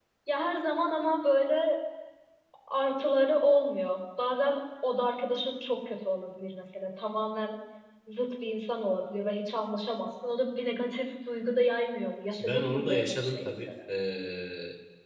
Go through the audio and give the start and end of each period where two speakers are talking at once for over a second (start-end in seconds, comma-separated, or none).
12.4-13.7